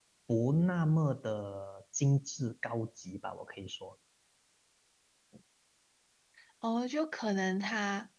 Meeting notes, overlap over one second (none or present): none